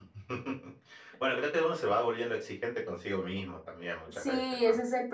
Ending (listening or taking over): taking over